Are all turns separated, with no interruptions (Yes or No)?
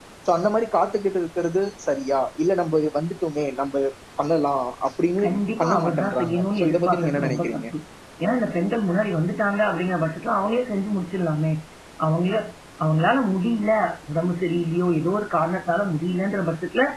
No